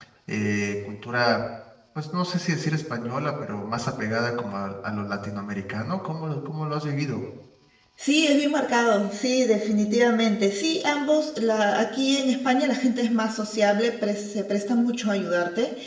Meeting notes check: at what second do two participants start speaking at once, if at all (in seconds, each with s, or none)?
none